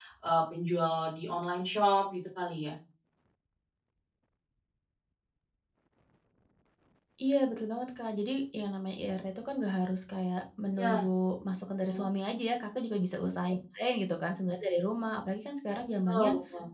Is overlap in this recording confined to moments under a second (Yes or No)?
Yes